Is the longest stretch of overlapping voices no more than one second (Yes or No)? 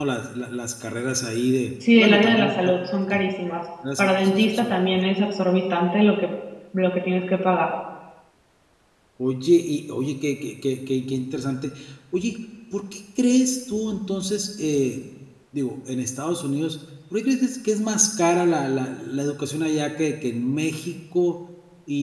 No